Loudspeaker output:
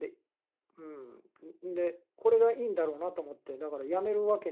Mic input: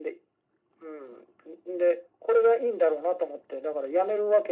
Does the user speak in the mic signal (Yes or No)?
No